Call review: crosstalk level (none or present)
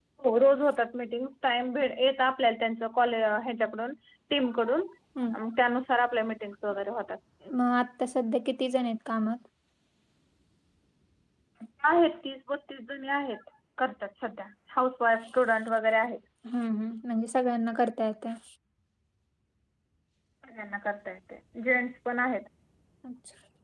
none